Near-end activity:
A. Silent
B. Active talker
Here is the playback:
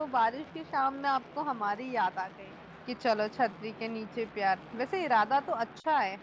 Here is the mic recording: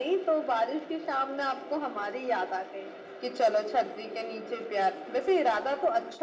A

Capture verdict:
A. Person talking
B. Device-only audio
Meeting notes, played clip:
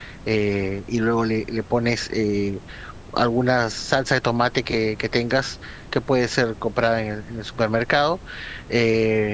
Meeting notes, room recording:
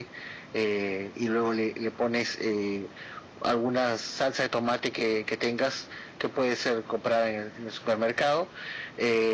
B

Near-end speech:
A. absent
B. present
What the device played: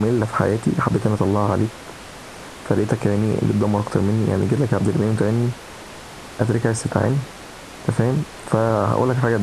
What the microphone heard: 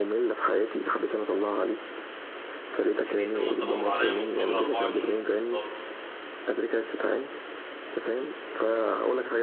B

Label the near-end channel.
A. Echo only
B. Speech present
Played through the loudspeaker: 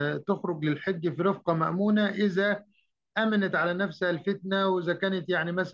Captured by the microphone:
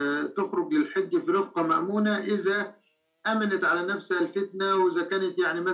A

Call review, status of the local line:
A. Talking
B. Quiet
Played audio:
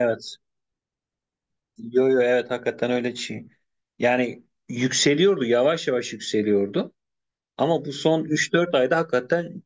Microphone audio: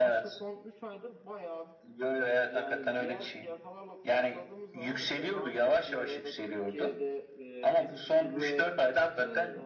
A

